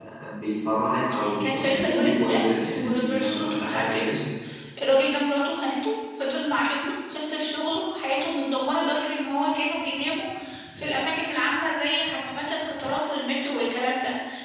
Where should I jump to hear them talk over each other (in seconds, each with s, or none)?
1.4 s